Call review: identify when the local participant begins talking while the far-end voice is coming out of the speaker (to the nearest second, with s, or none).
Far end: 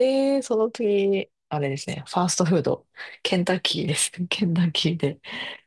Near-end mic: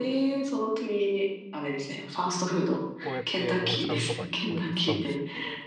3 s